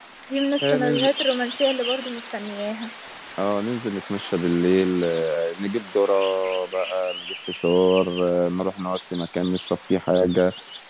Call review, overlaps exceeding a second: none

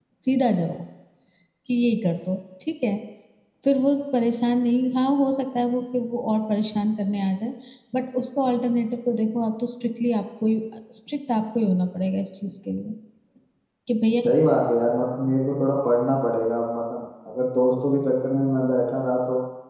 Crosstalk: none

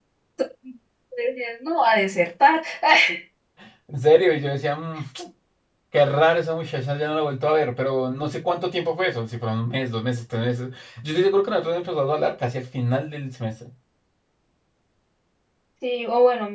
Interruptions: none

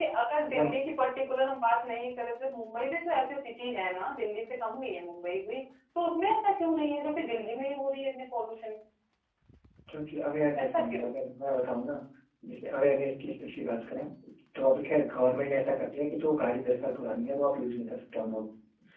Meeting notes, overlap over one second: none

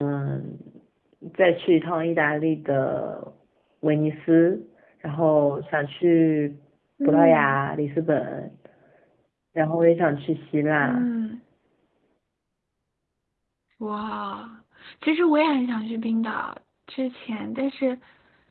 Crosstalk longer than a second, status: none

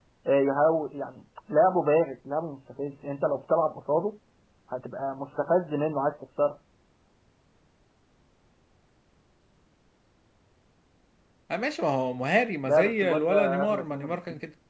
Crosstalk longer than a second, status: present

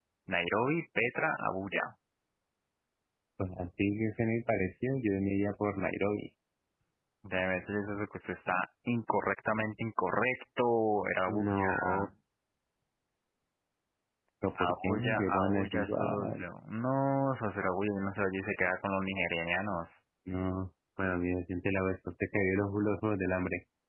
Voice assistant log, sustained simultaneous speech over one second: present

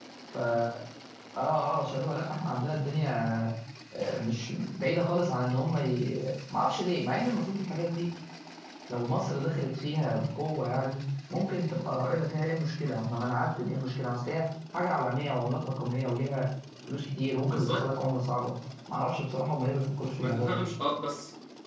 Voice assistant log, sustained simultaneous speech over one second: none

